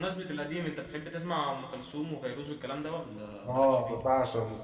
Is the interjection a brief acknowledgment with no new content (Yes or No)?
No